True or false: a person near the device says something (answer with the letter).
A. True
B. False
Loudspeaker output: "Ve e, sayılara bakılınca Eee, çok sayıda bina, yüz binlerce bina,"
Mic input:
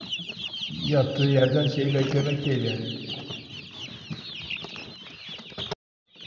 A